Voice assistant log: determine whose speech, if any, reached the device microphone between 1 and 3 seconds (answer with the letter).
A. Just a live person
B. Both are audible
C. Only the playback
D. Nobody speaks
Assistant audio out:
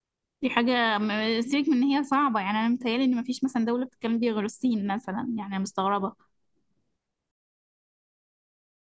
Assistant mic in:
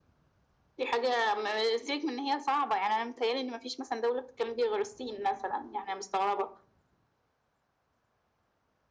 C